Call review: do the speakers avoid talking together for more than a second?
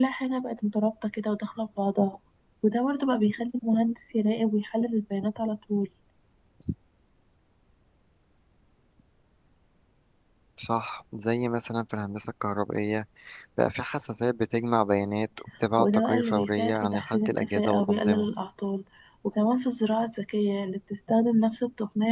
No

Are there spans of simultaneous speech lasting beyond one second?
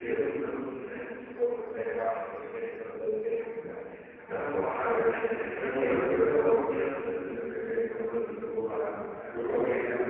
Yes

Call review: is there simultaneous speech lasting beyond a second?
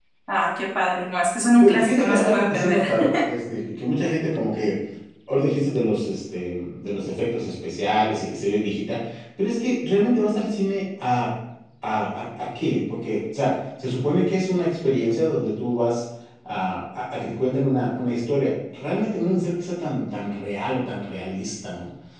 Yes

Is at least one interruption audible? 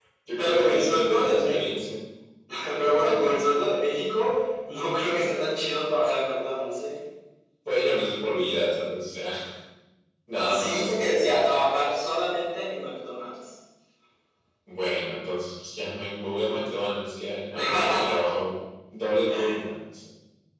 Yes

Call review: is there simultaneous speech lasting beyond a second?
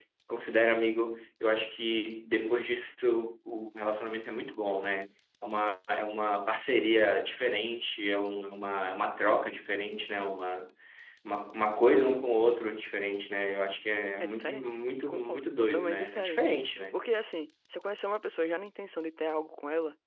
Yes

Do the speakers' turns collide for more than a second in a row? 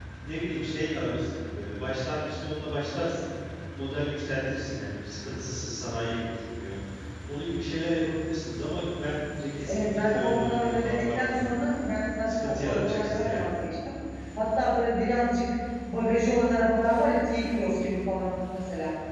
Yes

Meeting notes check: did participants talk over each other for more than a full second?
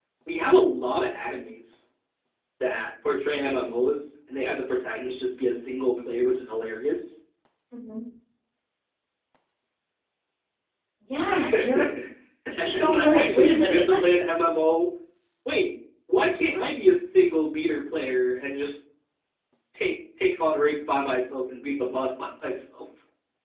Yes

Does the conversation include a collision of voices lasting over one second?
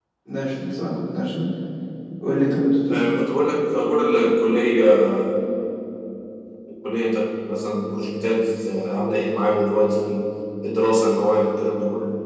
No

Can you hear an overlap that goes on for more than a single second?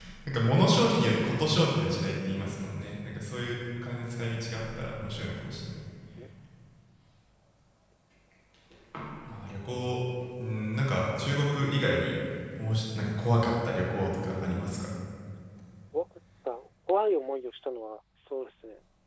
No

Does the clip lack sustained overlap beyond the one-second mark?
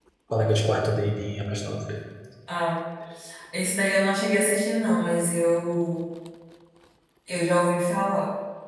Yes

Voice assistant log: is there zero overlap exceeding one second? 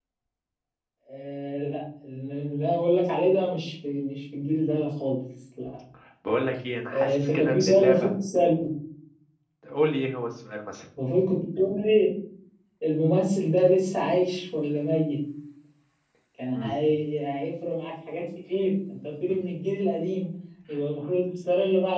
No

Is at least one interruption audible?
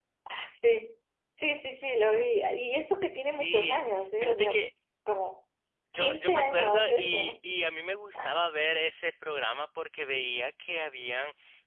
Yes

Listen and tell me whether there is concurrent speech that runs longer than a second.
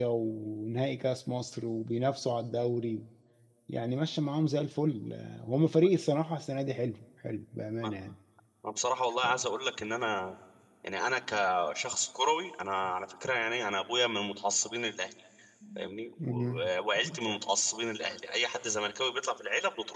No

